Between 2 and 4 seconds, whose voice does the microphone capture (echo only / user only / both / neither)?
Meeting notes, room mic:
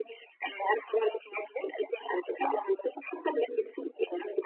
echo only